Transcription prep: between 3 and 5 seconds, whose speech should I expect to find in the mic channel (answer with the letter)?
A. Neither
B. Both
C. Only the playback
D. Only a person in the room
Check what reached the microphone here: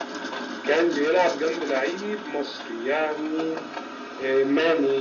C